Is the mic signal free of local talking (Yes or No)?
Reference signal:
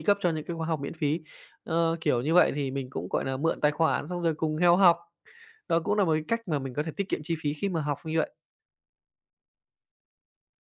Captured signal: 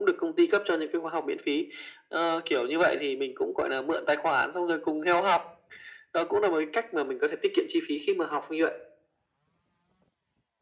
Yes